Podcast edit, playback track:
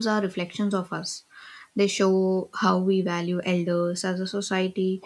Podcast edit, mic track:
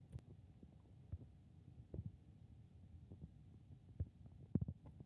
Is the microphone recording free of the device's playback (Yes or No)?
Yes